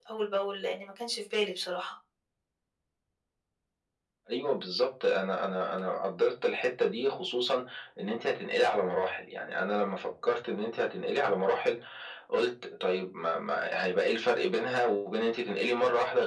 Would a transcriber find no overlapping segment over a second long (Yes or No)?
Yes